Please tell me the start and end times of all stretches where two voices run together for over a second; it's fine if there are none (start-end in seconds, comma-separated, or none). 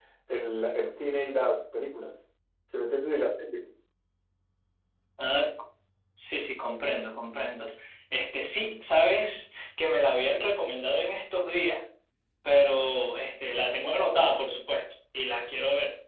none